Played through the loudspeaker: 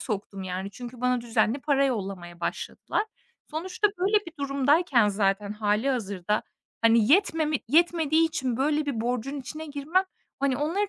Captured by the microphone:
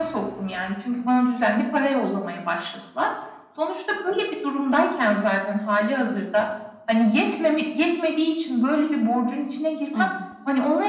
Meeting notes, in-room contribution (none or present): present